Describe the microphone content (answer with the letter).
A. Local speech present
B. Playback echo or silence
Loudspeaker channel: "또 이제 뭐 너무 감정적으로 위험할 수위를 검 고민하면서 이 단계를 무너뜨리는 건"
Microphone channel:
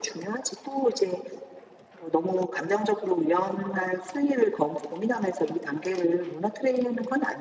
B